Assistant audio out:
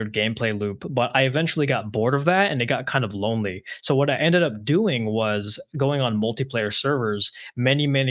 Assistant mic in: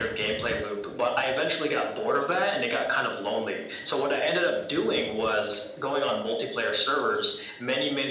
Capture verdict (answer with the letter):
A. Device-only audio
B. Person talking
A